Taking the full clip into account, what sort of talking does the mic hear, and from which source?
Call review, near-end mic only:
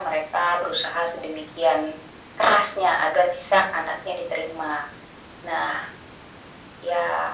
echo only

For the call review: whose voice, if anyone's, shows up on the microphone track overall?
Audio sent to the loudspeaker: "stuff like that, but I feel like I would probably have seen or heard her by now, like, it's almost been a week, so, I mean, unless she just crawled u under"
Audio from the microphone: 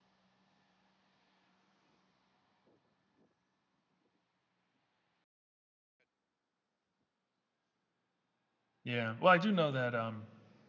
user only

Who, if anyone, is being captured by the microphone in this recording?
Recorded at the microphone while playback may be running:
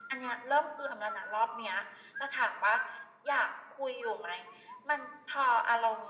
echo only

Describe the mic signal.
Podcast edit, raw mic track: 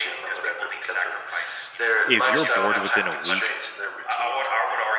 both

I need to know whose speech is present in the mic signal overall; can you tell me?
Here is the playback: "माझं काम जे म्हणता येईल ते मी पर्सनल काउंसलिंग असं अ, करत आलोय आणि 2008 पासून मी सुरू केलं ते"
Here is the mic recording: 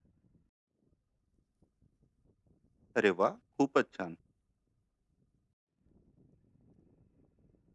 user only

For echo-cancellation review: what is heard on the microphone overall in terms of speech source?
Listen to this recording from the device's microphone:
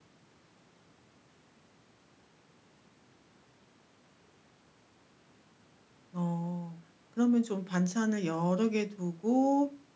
user only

